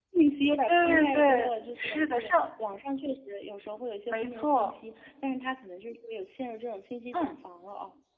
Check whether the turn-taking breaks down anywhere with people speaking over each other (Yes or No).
Yes